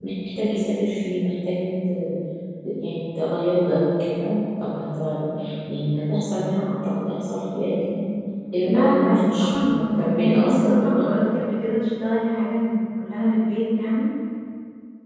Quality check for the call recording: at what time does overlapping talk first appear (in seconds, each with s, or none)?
8.6 s